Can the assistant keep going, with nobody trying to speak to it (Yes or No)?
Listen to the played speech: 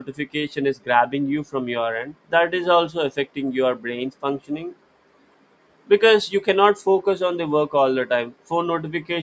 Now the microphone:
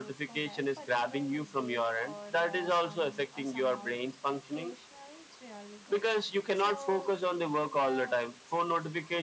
No